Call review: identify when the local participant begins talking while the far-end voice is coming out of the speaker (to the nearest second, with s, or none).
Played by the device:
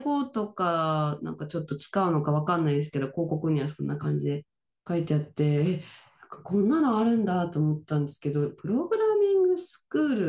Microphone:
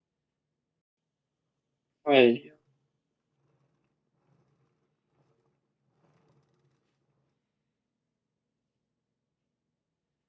2 s